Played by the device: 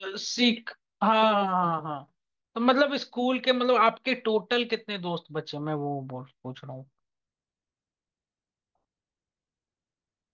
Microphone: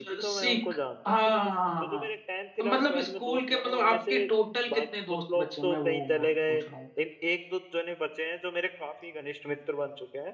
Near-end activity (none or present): present